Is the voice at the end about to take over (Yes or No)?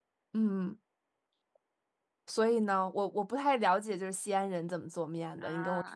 Yes